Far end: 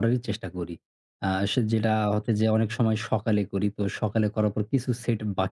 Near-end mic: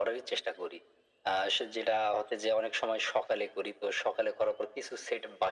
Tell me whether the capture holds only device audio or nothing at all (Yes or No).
Yes